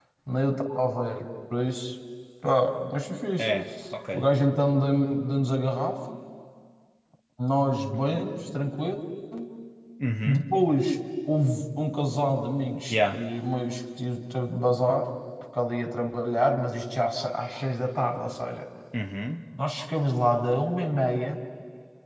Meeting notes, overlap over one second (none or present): none